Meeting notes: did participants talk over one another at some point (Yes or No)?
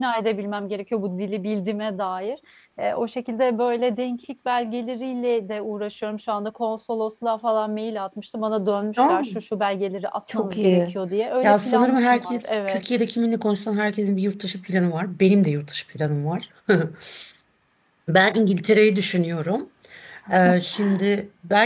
Yes